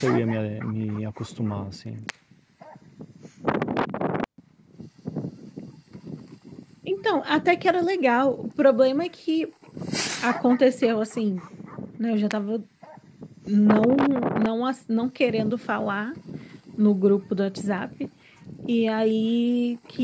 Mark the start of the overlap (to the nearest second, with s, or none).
none